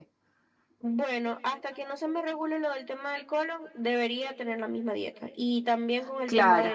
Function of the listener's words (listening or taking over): listening